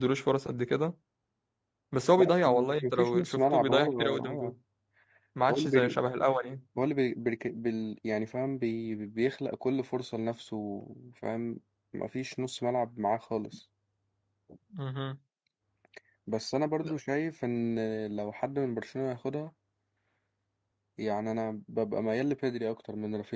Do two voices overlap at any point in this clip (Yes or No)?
Yes